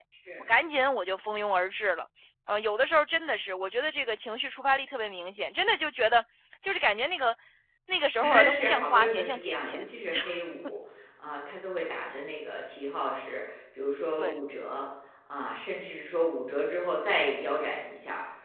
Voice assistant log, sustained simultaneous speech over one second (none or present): present